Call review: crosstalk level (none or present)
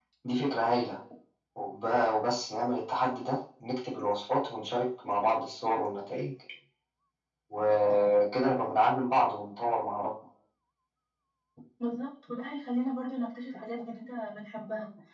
none